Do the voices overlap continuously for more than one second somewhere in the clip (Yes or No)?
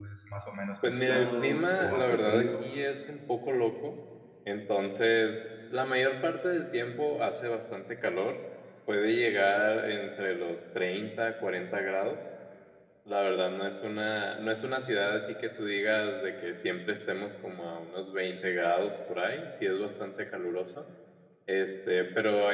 Yes